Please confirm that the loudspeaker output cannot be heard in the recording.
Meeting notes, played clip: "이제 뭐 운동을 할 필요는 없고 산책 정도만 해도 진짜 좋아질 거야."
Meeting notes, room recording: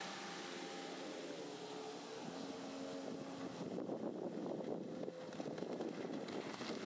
Yes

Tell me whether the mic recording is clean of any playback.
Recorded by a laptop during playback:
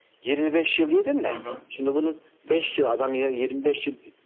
No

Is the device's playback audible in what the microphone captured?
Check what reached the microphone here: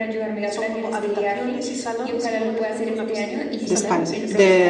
Yes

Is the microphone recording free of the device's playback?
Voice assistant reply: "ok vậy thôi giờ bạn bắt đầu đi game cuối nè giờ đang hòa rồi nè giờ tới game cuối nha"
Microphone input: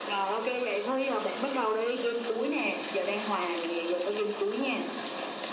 No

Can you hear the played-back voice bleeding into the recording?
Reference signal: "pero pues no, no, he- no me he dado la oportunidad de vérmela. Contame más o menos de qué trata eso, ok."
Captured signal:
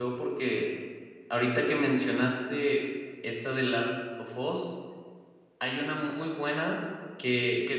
No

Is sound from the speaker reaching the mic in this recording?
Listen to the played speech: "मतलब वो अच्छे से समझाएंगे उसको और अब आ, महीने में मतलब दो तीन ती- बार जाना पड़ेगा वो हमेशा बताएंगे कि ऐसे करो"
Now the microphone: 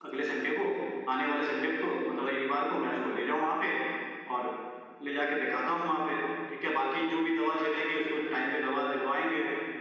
No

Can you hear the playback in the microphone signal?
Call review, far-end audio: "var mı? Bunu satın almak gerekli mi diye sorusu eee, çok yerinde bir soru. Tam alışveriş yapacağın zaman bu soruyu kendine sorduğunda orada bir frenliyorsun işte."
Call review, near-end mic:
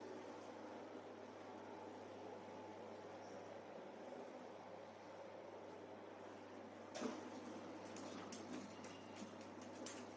No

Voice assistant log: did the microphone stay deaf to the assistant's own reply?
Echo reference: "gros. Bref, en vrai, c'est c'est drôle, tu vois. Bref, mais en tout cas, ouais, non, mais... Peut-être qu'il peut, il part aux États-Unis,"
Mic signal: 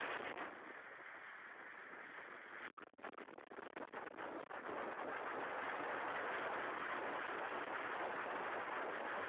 Yes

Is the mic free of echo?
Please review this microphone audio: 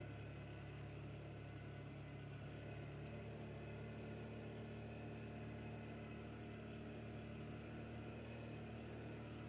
Yes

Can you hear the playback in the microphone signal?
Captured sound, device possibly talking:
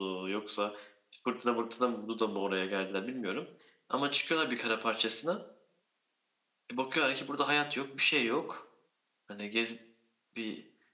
No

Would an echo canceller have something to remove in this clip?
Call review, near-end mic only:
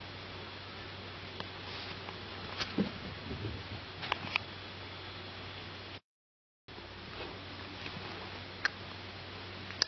No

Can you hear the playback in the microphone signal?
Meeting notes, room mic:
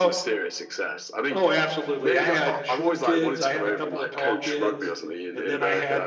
Yes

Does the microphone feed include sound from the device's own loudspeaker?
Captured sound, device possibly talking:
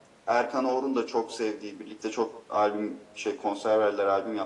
Yes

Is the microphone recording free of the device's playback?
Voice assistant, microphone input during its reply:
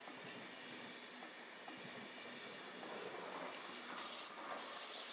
Yes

